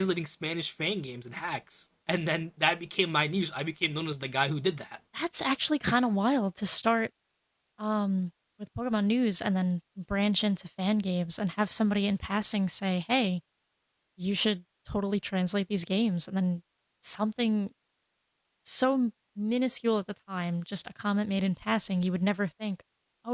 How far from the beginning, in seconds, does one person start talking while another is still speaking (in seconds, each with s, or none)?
none